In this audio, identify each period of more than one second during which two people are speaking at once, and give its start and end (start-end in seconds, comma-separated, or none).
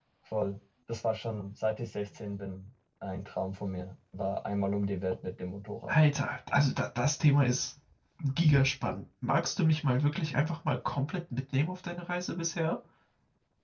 none